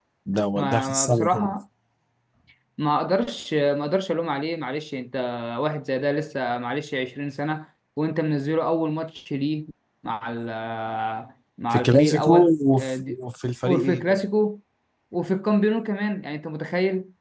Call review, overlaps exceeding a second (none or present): present